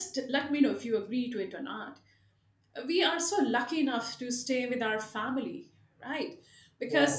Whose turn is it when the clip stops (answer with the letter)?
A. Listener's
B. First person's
B